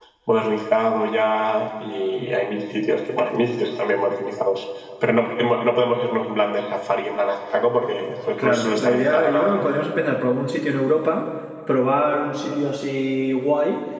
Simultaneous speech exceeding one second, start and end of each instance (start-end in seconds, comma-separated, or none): 8.4-9.7